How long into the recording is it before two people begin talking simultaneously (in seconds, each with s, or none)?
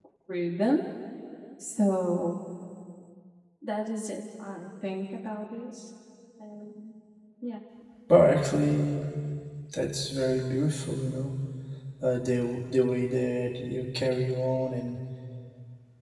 none